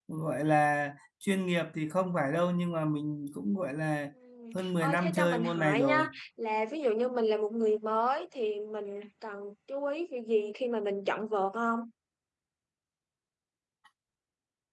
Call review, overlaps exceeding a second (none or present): present